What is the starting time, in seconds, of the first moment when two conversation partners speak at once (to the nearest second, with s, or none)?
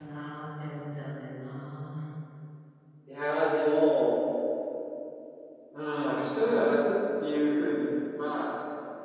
none